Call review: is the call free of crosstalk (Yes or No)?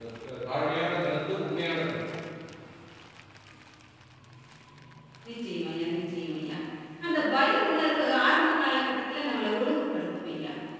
Yes